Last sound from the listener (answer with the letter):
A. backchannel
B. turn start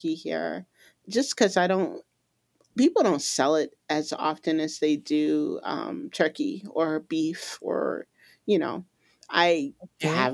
A